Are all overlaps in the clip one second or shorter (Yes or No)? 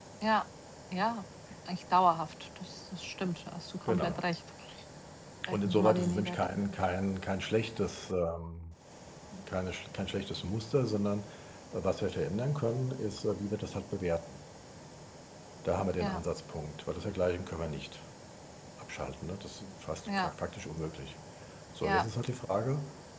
No